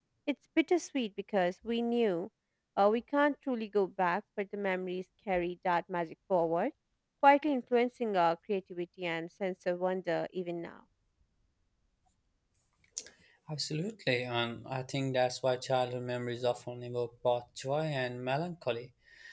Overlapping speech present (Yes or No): No